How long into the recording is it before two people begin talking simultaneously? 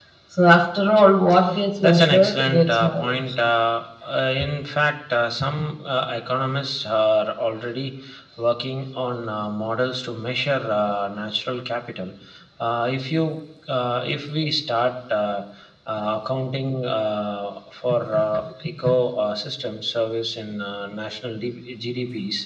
1.8 s

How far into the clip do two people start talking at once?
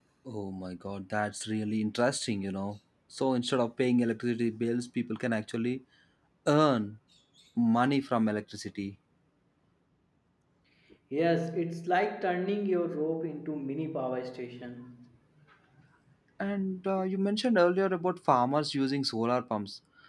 none

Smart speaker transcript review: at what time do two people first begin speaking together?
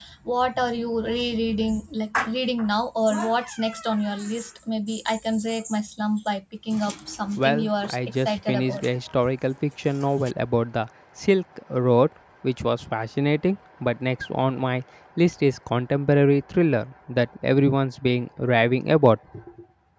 7.4 s

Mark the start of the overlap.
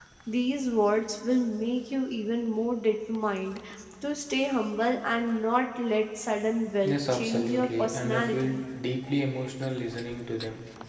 6.8 s

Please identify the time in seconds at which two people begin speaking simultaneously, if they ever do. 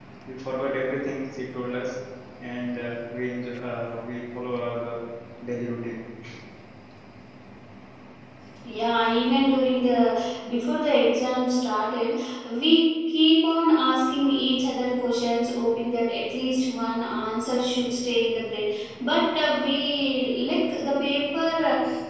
none

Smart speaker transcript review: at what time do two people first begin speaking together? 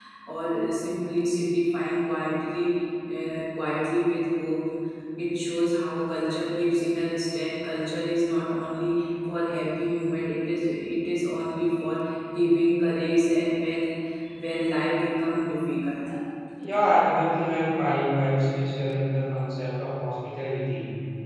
none

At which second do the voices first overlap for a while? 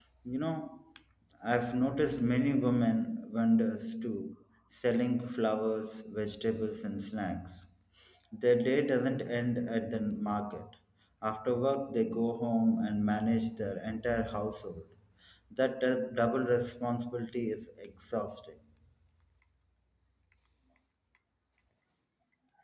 none

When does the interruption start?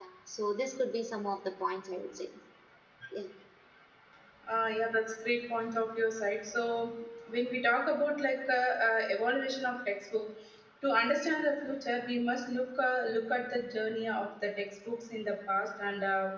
none

